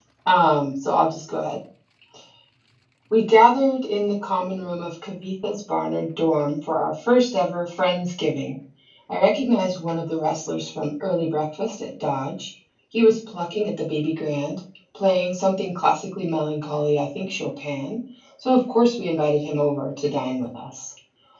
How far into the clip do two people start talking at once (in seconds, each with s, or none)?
none